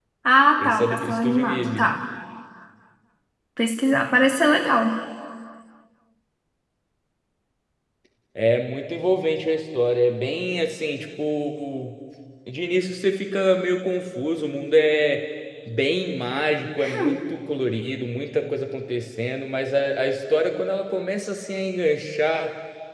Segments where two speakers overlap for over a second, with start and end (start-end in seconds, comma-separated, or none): 0.6-1.9